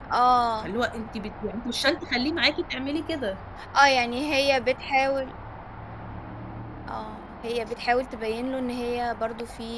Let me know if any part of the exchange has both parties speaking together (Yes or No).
No